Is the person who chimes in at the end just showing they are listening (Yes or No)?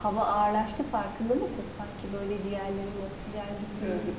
No